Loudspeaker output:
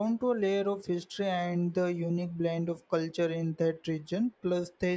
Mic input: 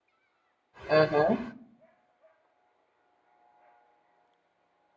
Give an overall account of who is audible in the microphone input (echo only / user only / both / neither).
user only